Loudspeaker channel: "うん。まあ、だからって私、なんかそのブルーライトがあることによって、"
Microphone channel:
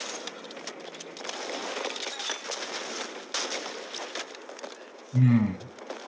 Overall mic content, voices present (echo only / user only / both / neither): user only